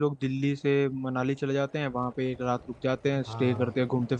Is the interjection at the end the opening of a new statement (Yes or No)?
No